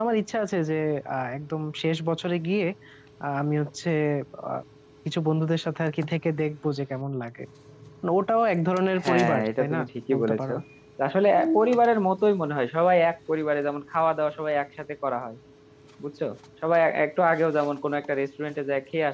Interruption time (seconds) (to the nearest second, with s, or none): 9 s